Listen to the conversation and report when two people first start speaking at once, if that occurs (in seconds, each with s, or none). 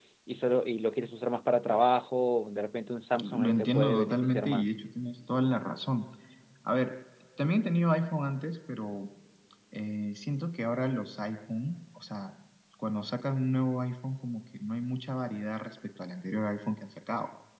3.2 s